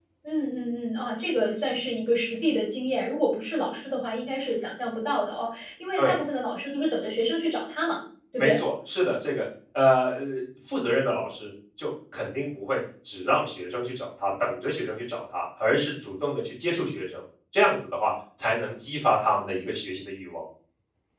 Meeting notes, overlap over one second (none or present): none